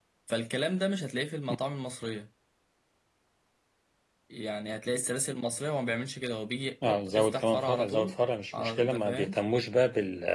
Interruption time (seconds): 7 s

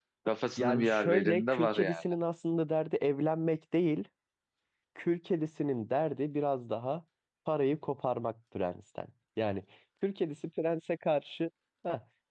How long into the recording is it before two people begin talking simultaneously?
1 s

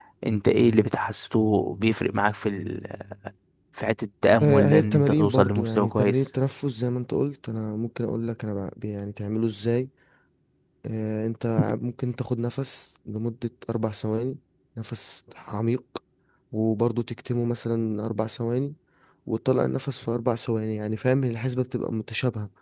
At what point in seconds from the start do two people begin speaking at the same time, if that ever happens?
4 s

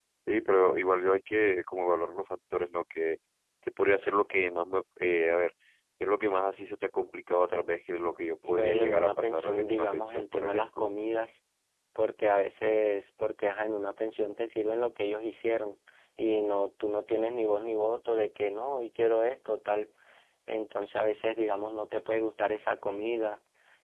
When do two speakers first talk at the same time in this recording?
8 s

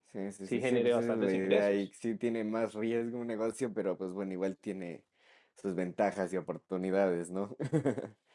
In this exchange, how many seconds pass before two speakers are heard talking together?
1 s

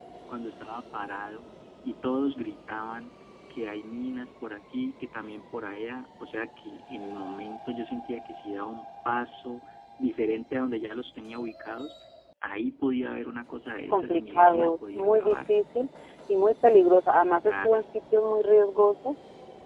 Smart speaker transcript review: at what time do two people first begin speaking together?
14 s

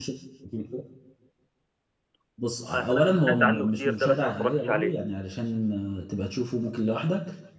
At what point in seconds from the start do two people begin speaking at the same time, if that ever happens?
3 s

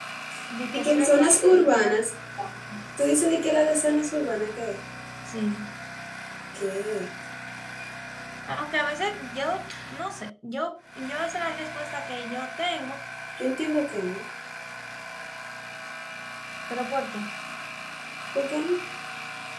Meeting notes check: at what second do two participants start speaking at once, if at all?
1 s

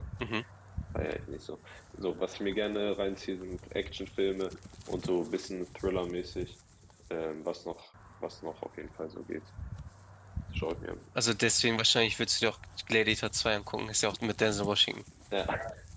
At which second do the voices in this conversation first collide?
none

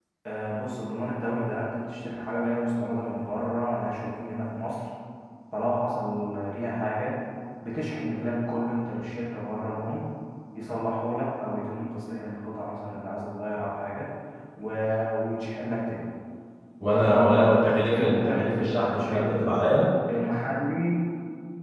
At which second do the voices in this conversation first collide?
17 s

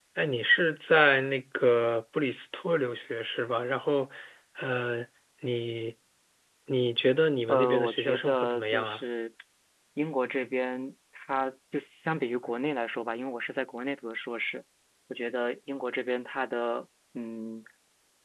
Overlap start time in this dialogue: 7 s

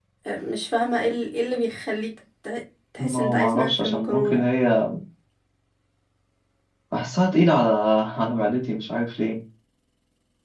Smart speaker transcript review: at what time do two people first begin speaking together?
3 s

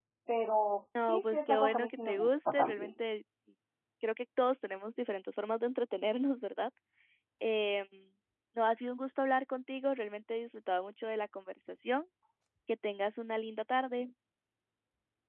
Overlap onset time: 1 s

